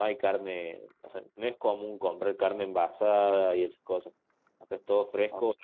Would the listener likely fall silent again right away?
No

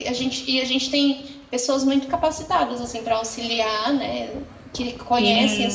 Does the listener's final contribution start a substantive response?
Yes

